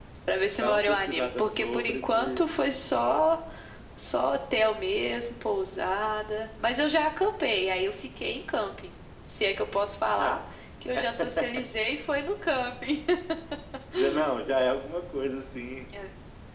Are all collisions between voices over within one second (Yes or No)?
No